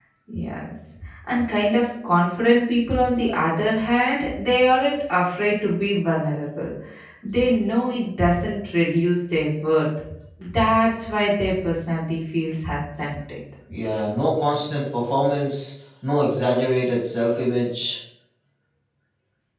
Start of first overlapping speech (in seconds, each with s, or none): none